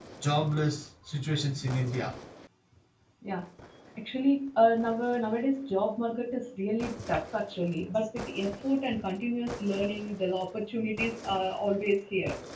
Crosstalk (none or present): none